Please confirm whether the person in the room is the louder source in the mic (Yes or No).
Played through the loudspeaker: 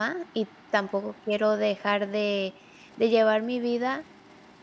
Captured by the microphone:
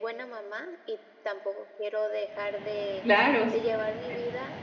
Yes